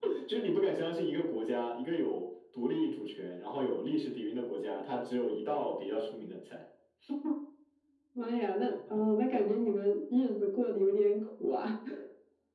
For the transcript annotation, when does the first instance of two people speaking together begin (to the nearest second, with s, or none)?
none